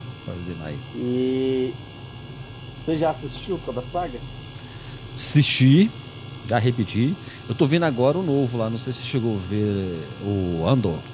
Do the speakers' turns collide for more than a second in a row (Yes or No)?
No